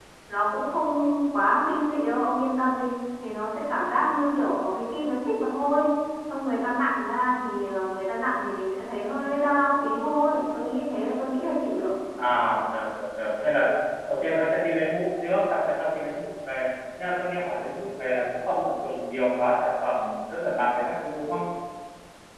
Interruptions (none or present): none